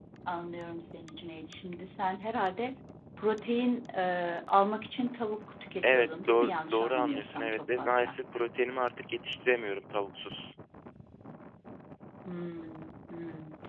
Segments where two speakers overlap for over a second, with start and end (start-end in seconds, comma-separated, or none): 5.8-8.2